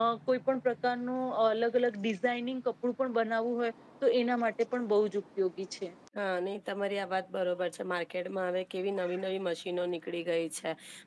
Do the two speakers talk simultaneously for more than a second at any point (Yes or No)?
No